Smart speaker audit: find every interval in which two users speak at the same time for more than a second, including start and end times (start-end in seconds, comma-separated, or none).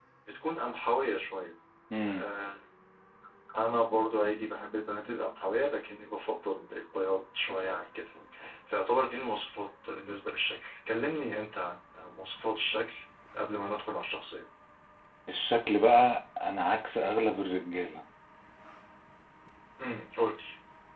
none